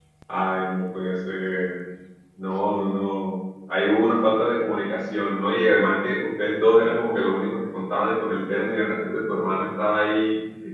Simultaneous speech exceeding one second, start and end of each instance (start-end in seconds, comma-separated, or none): none